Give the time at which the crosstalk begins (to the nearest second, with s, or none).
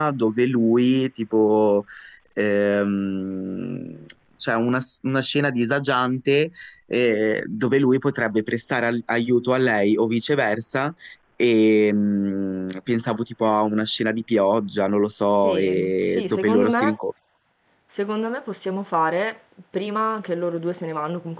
15 s